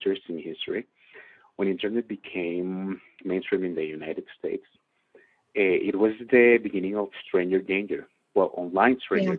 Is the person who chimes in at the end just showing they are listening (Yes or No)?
Yes